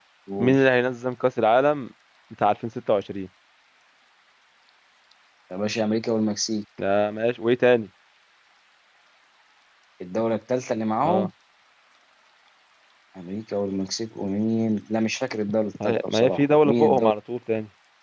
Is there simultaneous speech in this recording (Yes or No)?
Yes